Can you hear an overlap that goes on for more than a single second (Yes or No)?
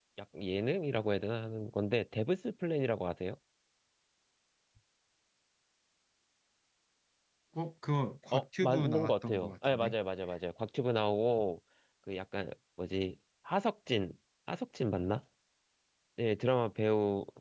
Yes